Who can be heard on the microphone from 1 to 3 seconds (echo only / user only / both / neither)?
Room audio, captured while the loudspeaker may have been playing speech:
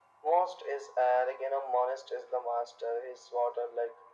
echo only